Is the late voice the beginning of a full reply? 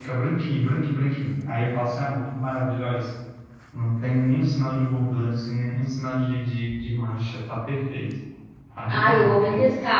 Yes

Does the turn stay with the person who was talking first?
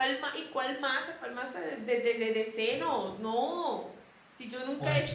Yes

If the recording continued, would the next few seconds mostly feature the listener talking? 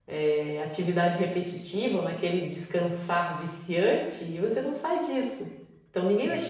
No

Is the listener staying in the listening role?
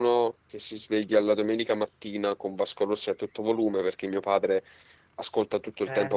Yes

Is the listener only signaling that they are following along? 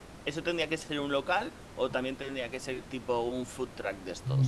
No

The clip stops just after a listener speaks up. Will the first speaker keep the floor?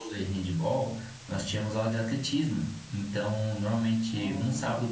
Yes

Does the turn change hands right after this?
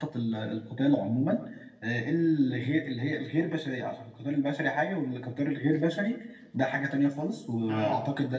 No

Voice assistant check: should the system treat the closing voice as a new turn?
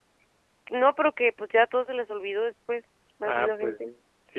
Yes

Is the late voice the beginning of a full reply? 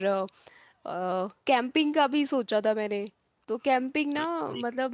No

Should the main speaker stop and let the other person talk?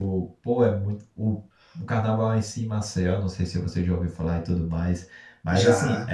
No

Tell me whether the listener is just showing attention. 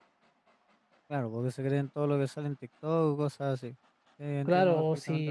No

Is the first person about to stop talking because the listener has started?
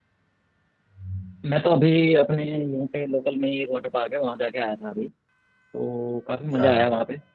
No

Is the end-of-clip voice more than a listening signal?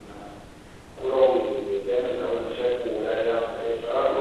No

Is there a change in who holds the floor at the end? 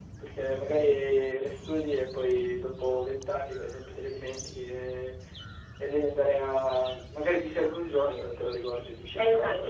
Yes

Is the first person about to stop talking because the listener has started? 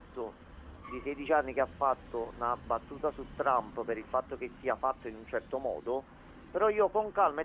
No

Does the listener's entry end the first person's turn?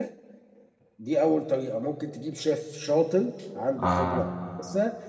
No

